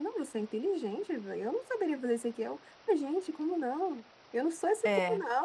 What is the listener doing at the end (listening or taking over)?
listening